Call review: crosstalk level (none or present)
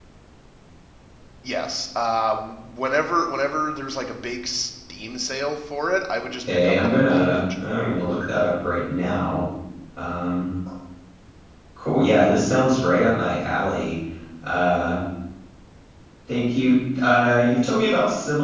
present